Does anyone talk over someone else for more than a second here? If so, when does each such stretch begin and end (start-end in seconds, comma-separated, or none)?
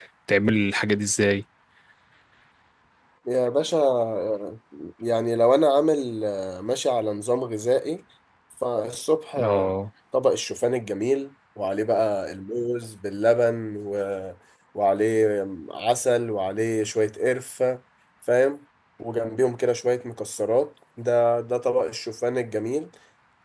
none